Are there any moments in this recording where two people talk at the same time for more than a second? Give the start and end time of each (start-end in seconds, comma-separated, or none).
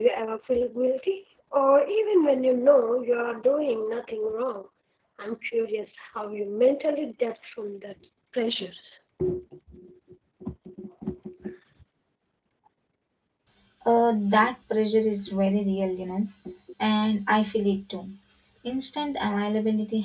none